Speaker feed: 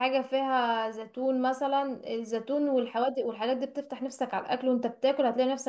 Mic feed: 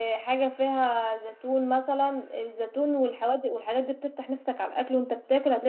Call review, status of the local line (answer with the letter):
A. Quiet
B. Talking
A